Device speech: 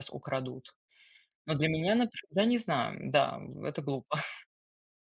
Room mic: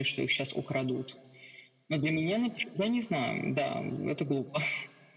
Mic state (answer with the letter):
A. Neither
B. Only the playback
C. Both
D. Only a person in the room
B